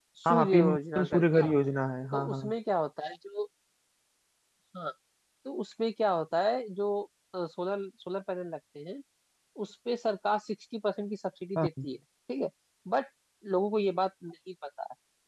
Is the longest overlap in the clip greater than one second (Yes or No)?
Yes